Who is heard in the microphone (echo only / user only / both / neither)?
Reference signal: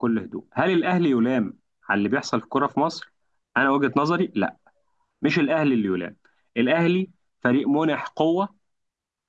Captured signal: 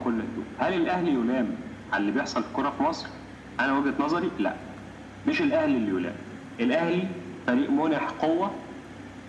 echo only